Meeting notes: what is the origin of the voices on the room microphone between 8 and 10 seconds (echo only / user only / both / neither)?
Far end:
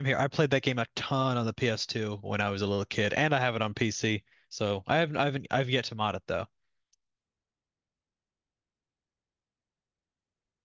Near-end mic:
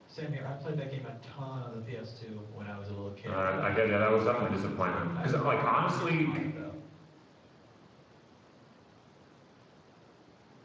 neither